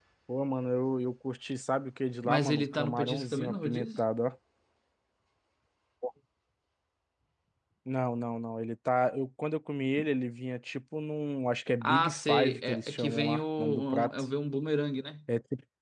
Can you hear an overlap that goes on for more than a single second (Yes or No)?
Yes